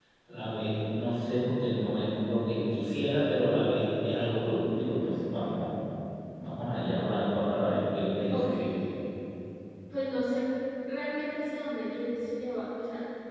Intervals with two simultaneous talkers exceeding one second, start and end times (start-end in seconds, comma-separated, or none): none